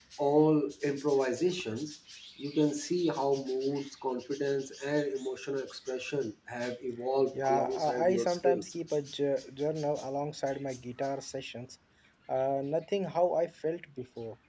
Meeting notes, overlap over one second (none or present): present